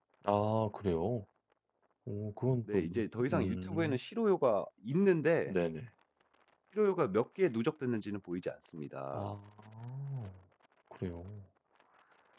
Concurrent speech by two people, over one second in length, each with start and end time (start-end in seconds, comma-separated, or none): 2.7-4.0